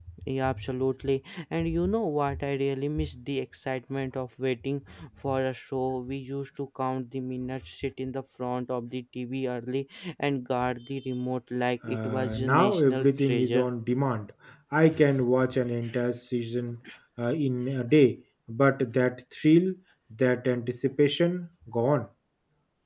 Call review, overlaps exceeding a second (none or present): present